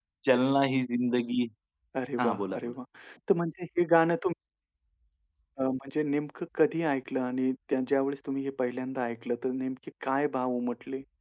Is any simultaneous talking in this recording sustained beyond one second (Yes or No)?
No